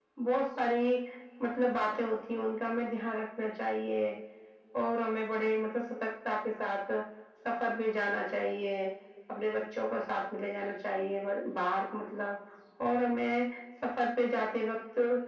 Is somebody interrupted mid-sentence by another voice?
No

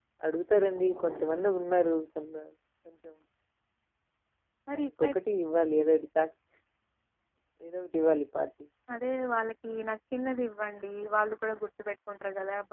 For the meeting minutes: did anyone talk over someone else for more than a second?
No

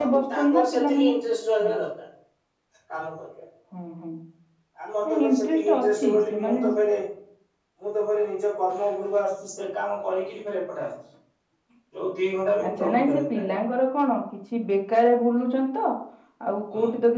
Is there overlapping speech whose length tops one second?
Yes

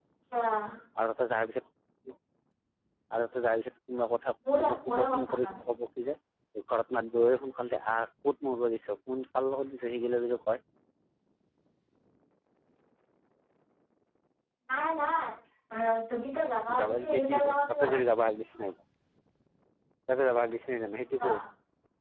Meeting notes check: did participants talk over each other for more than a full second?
Yes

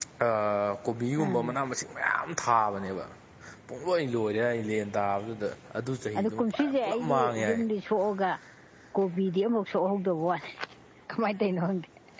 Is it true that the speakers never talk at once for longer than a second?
No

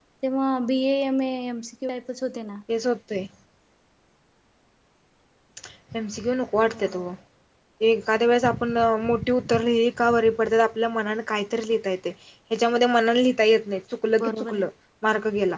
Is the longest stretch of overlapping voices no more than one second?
Yes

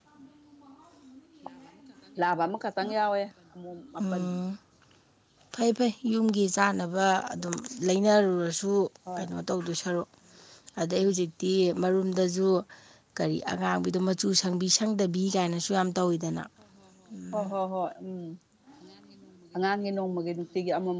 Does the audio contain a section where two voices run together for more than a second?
No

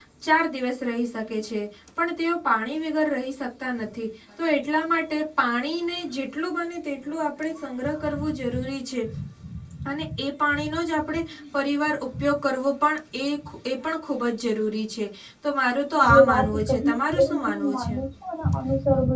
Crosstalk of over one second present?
Yes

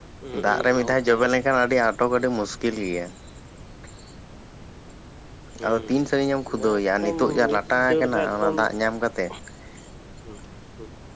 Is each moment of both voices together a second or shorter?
No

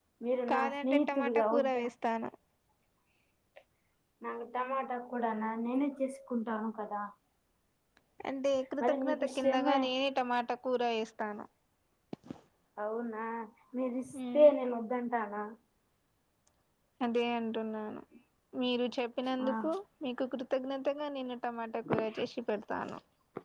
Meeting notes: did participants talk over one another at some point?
Yes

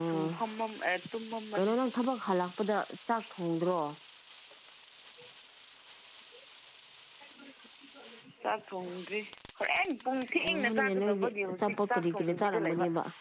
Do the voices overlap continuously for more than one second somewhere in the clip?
Yes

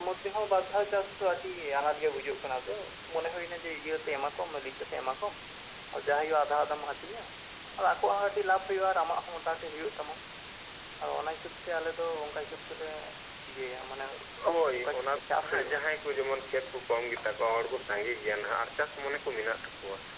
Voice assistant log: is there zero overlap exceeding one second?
No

